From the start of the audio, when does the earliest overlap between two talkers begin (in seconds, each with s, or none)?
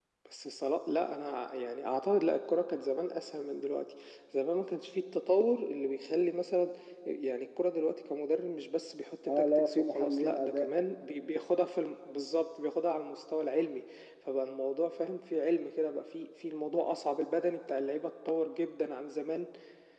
9.3 s